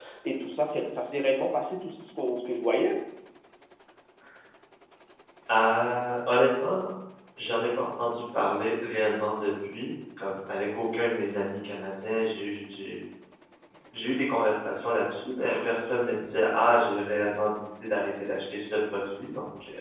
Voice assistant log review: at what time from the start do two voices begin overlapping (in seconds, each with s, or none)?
none